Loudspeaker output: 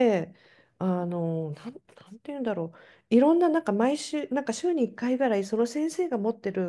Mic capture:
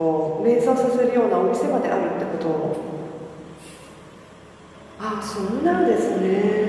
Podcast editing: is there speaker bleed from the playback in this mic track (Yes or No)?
No